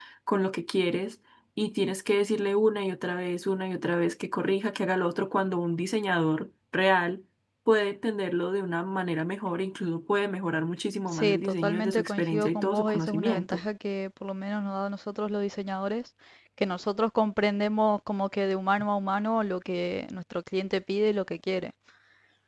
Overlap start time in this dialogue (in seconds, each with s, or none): 11.1 s